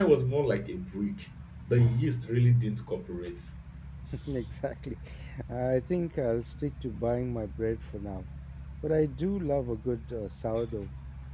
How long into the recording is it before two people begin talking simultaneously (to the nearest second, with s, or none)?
none